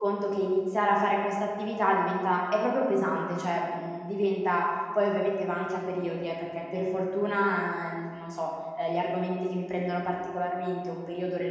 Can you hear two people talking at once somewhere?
No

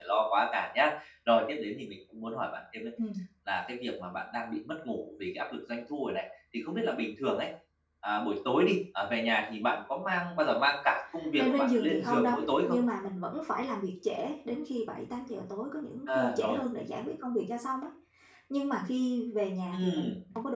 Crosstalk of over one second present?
Yes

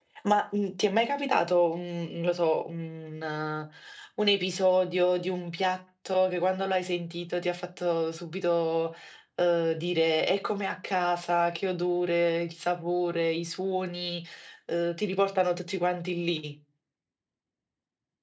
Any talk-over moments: No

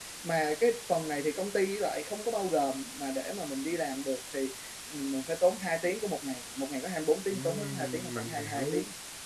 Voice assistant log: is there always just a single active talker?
No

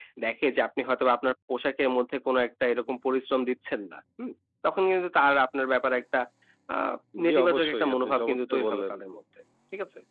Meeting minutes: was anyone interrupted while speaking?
Yes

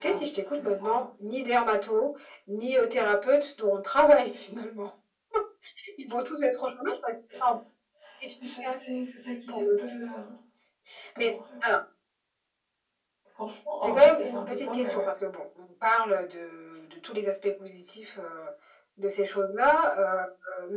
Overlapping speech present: Yes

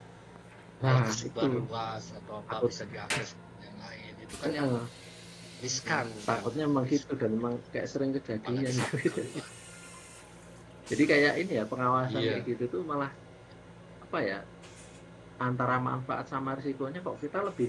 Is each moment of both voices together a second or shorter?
No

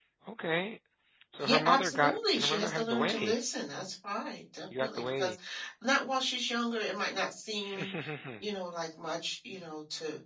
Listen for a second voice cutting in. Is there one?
Yes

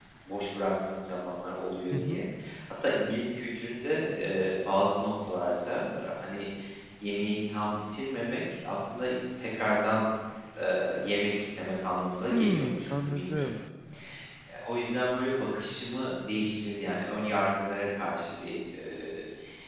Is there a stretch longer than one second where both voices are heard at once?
Yes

